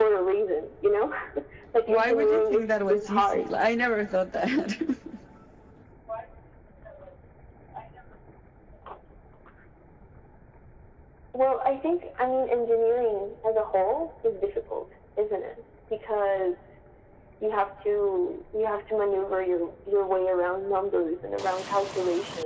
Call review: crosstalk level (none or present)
present